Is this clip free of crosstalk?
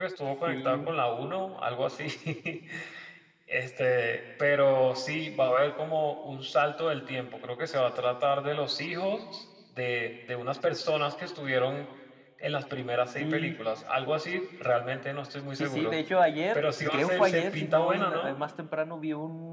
No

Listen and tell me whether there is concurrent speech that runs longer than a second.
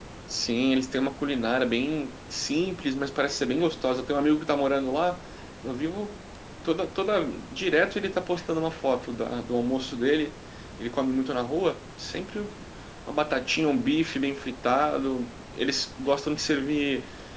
No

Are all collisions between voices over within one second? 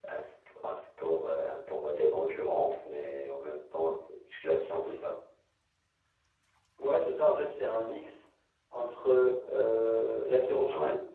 Yes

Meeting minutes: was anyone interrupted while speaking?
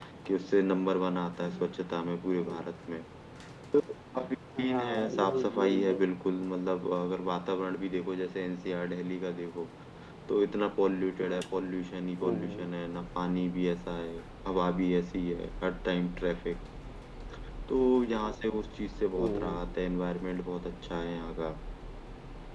Yes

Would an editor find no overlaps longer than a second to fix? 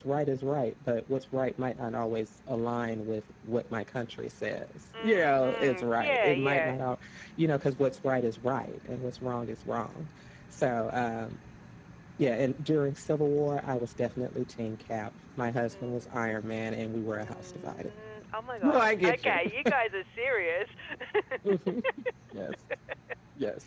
No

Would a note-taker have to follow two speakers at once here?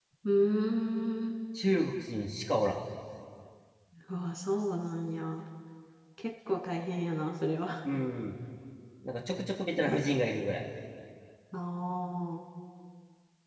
No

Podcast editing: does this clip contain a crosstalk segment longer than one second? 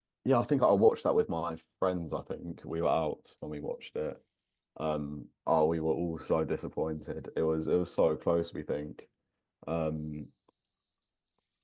No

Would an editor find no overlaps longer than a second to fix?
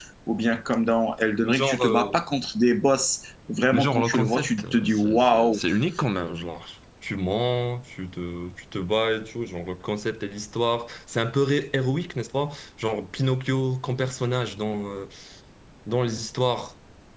No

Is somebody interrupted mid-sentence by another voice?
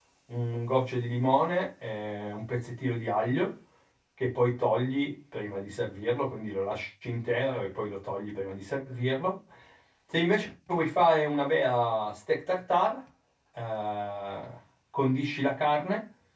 No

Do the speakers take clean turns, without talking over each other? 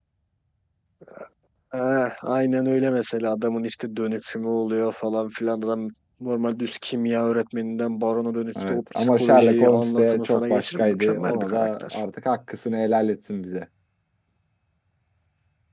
No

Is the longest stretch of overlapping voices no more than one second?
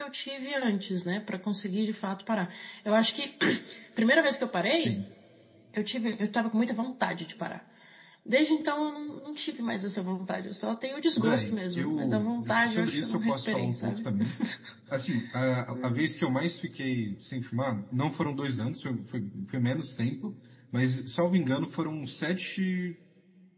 No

